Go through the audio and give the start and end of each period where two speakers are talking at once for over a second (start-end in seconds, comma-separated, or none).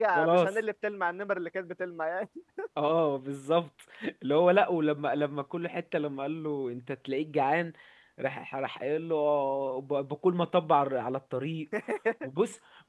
none